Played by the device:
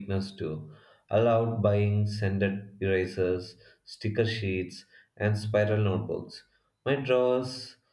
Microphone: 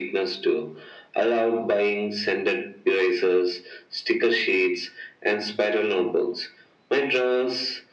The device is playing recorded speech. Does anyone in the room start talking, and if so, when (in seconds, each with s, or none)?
none